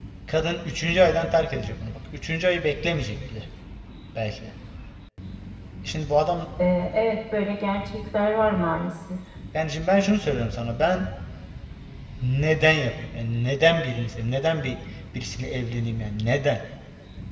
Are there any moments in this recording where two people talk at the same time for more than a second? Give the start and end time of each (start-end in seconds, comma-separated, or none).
none